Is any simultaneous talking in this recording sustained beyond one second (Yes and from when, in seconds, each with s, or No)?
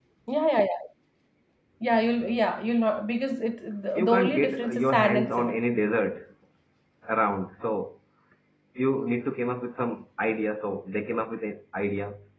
Yes, from 4.0 s